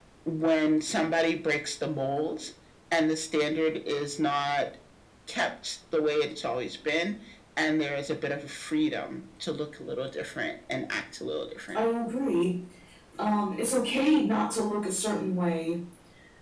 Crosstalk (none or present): none